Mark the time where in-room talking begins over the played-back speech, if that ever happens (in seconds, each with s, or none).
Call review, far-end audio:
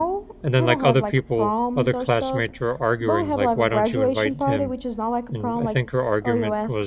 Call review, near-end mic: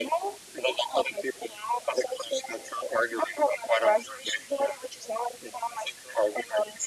none